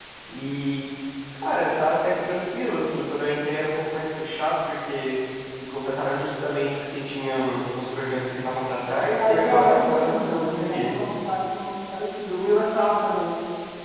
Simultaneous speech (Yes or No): Yes